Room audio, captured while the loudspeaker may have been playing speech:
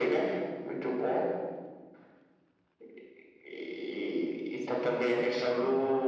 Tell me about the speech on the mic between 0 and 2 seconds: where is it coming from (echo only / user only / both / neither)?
echo only